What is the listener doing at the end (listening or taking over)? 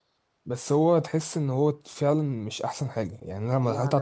listening